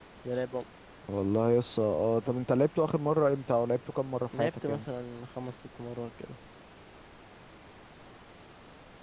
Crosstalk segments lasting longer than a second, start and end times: none

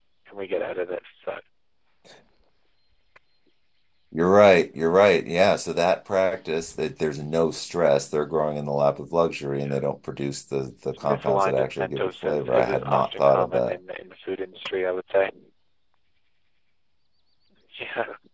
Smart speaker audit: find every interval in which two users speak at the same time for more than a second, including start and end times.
10.9-13.8

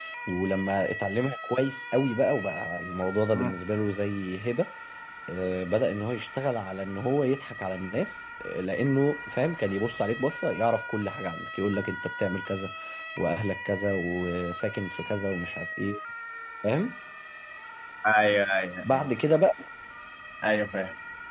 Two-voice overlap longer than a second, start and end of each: none

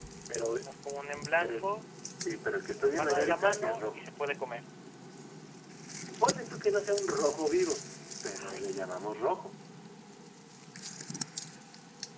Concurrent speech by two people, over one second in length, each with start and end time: 2.8-4.0

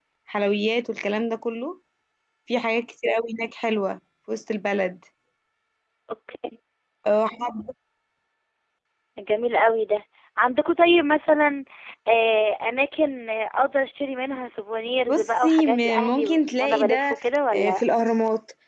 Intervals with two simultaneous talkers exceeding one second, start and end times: 15.1-17.1

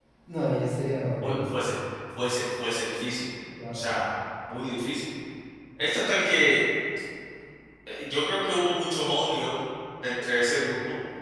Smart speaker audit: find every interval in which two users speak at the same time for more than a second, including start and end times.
none

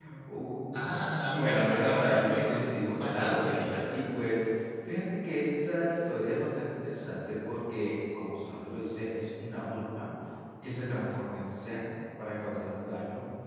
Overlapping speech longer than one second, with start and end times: 1.3-4.0

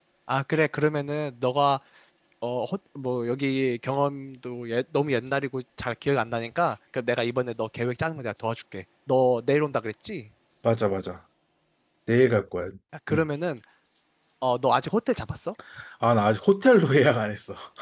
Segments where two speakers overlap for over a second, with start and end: none

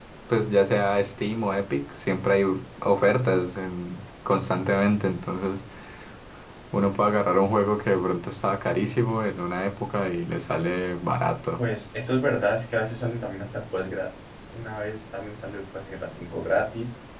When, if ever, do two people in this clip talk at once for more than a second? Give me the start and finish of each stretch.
none

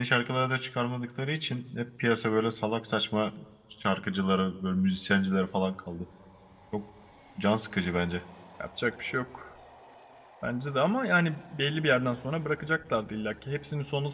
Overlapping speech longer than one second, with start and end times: none

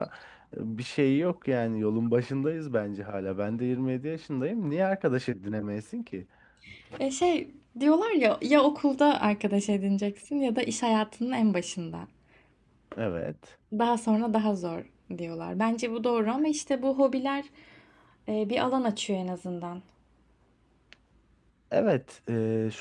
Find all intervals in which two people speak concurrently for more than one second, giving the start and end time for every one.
none

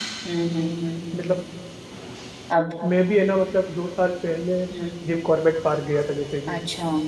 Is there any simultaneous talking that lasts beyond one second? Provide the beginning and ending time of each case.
none

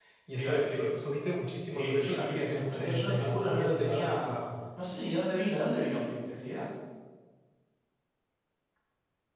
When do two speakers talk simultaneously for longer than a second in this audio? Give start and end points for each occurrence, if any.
1.6-4.4

